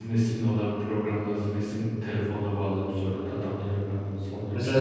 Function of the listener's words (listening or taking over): taking over